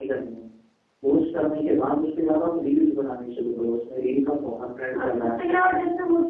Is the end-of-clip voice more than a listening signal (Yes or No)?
Yes